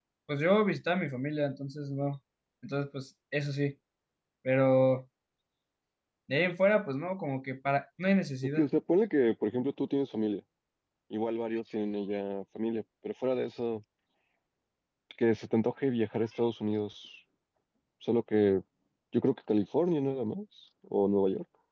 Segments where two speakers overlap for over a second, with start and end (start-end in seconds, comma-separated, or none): none